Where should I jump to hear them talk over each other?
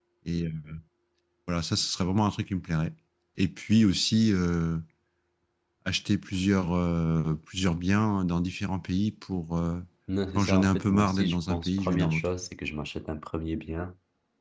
10 s

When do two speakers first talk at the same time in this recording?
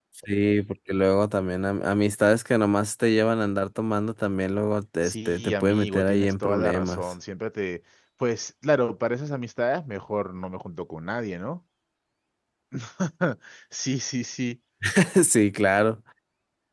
5 s

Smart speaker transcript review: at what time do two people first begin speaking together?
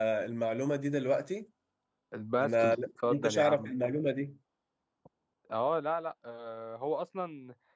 2 s

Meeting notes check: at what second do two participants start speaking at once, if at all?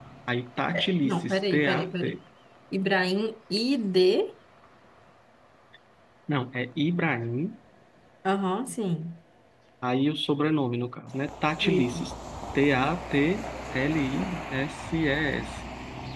1 s

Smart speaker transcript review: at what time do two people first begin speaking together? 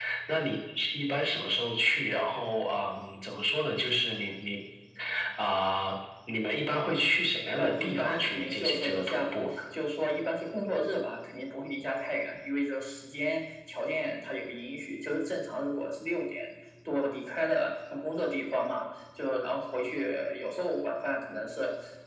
8 s

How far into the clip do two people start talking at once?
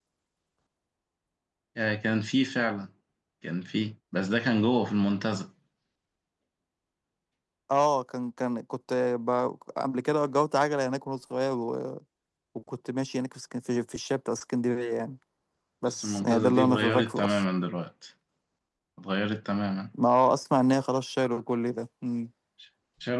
16 s

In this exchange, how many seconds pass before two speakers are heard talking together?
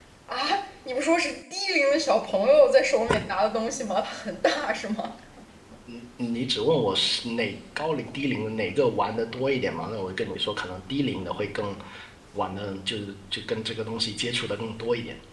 none

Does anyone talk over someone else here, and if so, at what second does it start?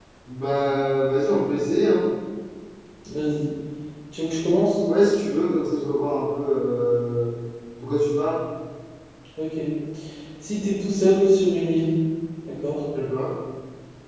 none

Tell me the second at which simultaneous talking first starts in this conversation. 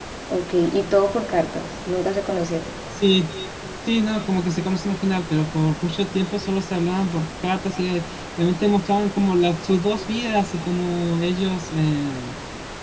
none

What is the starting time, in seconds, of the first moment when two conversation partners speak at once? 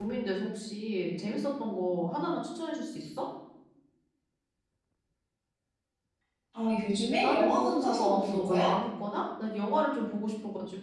7 s

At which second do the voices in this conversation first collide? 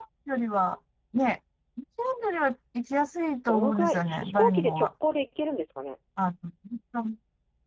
3 s

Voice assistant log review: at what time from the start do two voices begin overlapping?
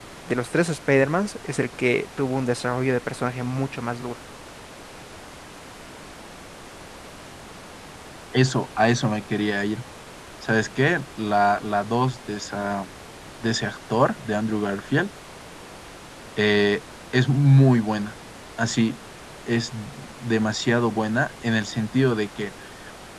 none

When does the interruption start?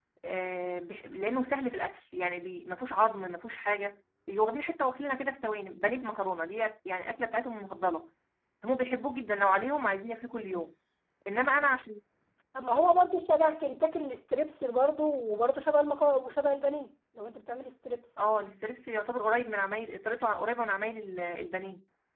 none

